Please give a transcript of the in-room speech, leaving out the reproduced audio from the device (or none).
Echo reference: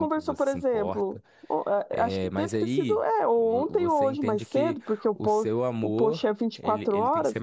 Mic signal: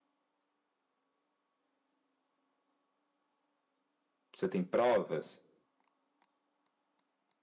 Você tem provas?